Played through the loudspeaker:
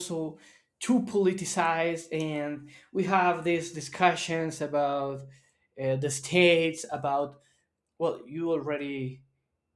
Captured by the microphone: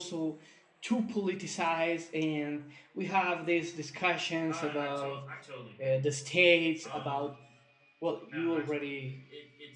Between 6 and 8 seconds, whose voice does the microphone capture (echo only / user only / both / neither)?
both